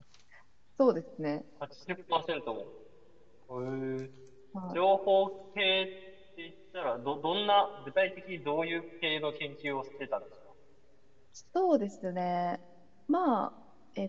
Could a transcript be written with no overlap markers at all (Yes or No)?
Yes